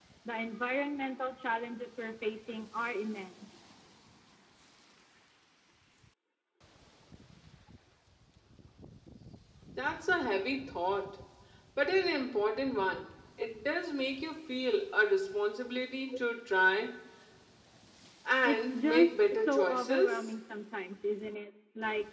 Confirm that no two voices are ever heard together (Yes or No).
No